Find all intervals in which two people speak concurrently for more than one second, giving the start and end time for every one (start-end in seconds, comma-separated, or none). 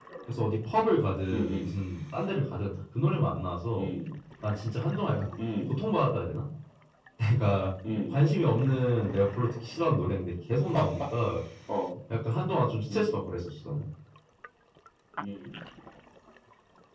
none